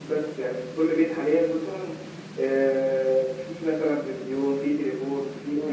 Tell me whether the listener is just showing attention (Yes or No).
Yes